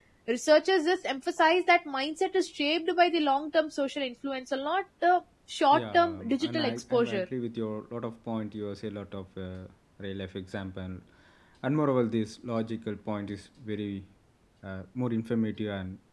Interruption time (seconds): 5.7 s

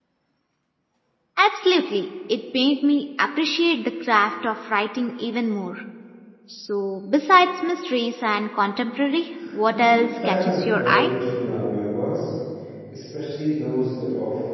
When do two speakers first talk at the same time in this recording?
9.7 s

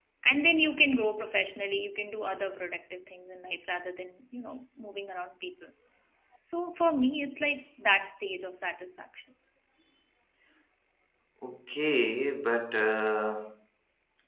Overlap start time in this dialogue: none

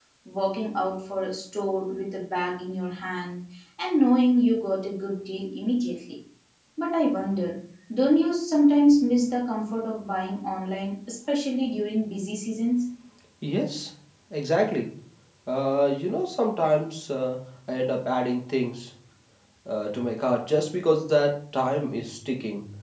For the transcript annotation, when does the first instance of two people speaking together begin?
none

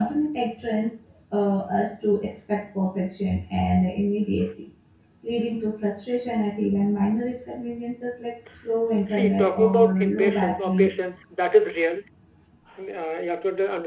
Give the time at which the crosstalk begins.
9.1 s

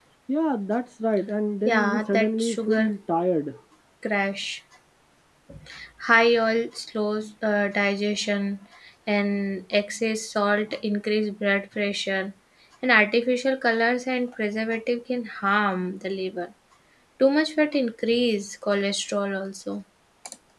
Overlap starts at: 1.6 s

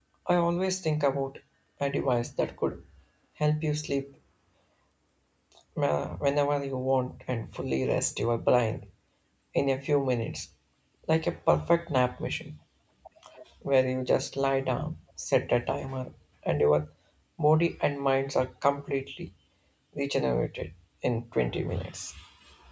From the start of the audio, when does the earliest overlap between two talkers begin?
none

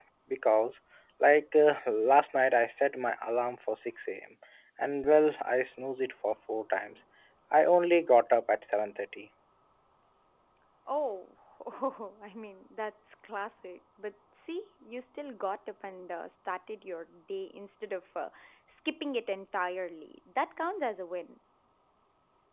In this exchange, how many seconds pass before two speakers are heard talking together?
none

